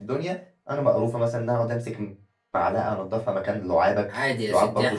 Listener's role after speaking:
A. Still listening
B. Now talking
B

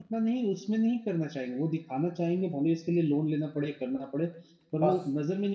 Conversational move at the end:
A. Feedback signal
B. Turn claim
A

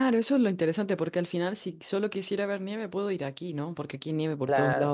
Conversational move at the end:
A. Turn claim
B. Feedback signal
B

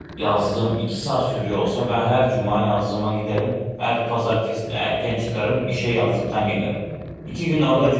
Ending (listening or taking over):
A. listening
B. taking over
A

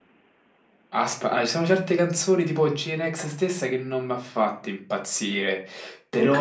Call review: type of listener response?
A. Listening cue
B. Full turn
A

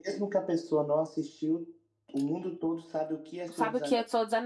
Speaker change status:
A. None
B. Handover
B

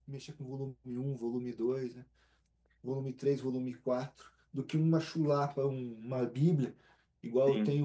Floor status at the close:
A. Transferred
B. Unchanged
B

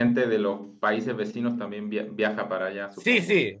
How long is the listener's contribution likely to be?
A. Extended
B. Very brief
A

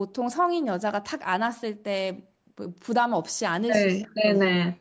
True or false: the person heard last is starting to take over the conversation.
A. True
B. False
A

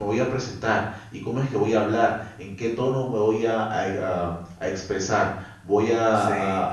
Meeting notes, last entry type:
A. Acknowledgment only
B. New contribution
A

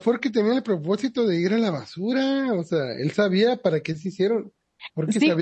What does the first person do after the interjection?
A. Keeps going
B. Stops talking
B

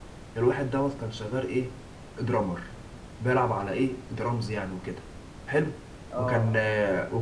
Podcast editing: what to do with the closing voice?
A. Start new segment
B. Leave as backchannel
B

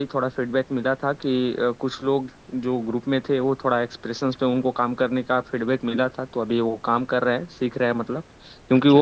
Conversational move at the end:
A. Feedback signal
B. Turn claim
A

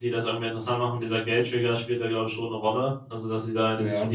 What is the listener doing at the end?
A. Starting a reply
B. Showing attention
B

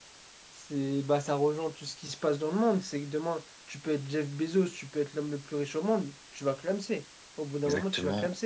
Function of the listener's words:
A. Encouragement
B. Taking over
B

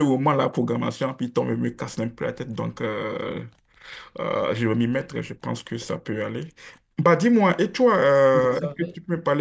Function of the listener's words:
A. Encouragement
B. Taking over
A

